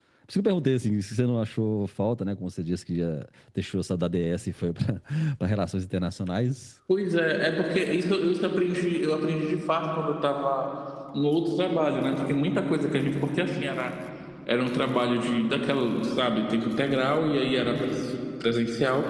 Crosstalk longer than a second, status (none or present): none